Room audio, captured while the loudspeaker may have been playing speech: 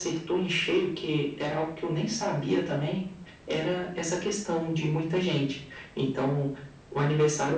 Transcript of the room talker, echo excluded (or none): none